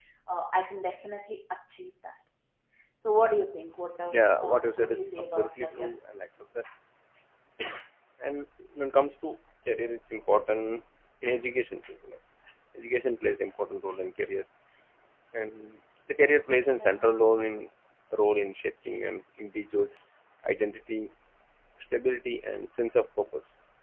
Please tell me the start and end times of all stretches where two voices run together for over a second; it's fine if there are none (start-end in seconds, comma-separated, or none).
4.1-5.9